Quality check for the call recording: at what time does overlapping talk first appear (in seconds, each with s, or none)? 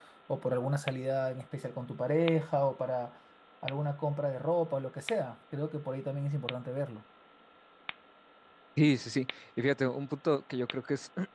none